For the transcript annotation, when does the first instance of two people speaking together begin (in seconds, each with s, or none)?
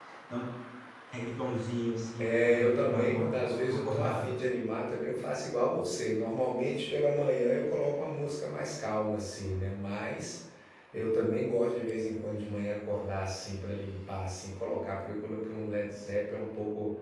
2.2 s